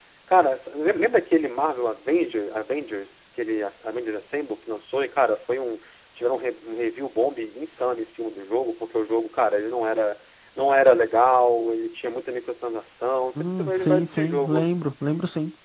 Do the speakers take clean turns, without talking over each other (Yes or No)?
No